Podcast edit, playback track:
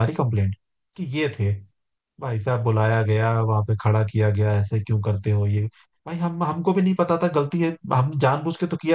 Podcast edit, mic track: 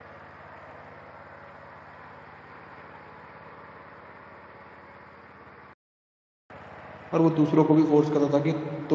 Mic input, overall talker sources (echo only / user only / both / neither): user only